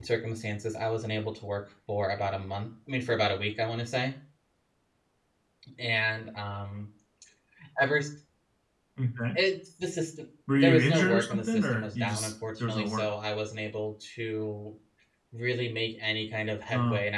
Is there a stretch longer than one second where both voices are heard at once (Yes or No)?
Yes